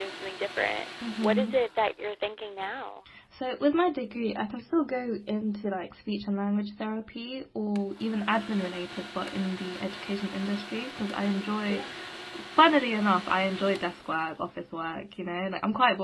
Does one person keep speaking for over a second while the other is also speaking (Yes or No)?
No